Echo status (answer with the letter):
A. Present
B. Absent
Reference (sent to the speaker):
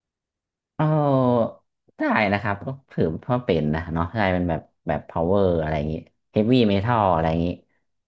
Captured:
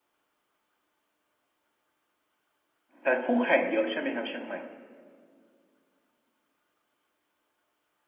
B